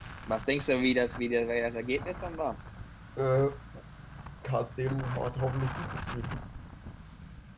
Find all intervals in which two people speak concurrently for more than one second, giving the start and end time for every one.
none

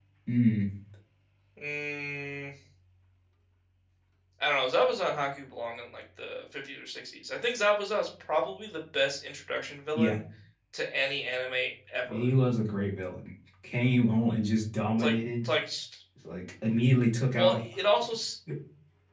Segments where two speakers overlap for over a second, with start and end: none

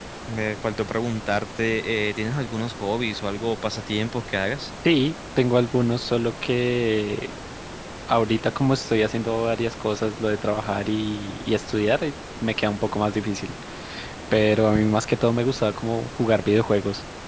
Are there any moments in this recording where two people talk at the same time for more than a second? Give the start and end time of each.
none

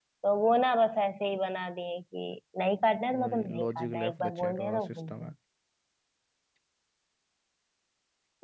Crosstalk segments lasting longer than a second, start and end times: 3.1-5.3

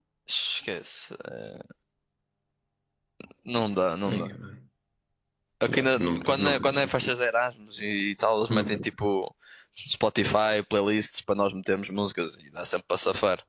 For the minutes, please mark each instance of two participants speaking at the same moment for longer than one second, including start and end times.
5.7-7.1

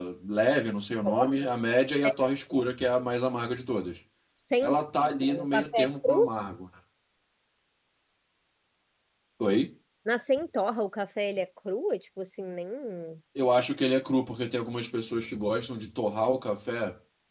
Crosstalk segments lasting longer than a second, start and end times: 4.6-6.3

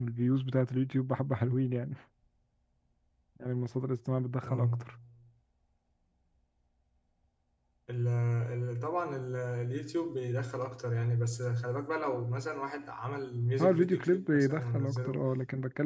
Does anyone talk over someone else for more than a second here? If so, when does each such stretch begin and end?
13.6-15.2

